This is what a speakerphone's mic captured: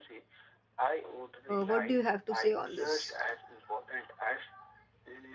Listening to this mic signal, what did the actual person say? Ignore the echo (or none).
Uh, what do you have to say on this?